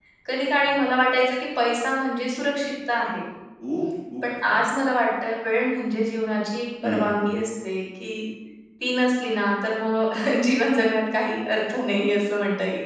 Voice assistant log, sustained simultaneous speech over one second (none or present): none